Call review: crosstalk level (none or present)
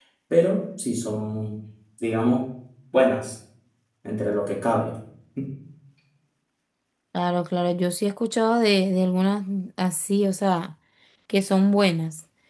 none